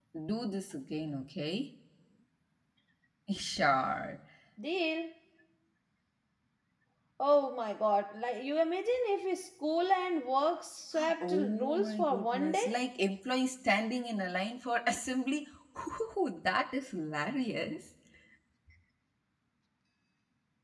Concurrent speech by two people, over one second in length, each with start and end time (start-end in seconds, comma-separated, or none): 11.2-12.7